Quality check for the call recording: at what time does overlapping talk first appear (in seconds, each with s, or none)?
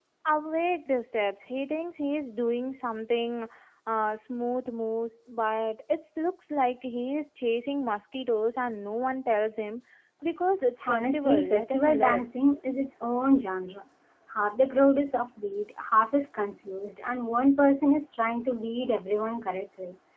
10.8 s